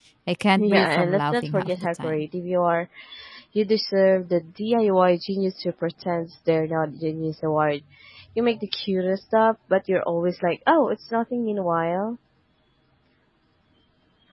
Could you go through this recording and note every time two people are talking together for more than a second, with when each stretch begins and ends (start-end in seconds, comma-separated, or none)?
0.6-2.2